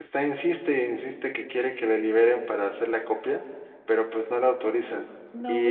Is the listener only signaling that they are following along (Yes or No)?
No